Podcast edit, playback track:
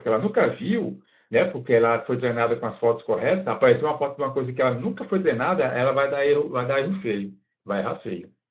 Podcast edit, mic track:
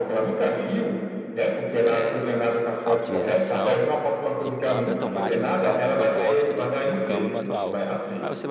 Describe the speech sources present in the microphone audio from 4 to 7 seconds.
both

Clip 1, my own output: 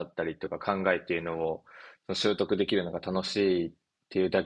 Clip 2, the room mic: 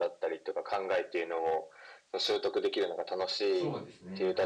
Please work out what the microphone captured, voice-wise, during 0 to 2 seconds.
echo only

